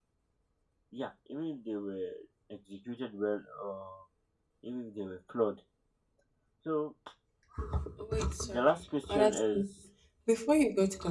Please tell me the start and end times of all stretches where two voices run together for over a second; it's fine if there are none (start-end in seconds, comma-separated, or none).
8.4-9.6